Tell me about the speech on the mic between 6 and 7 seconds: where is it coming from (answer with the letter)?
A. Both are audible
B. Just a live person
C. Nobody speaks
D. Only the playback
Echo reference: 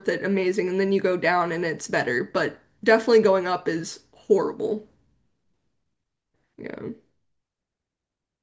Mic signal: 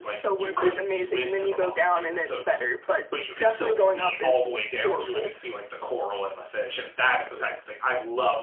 B